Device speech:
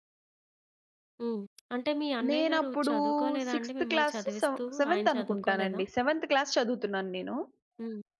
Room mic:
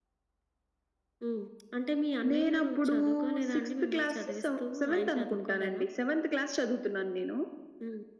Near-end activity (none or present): none